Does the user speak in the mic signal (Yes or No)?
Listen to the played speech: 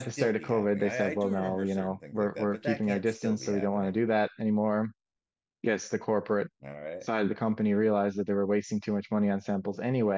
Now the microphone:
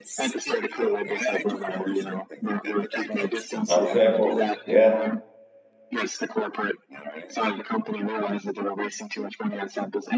Yes